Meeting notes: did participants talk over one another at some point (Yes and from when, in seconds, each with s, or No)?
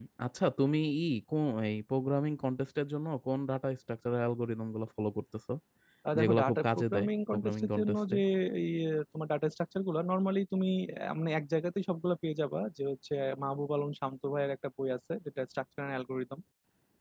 Yes, from 6.2 s